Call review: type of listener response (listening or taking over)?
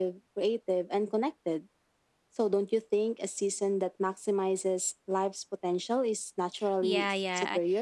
taking over